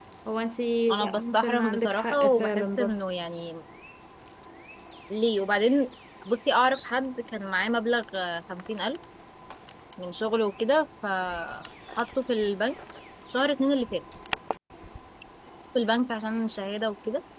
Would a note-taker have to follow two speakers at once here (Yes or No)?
Yes